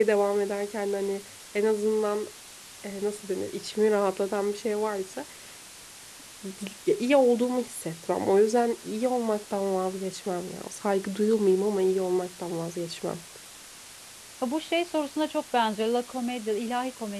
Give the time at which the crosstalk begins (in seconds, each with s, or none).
none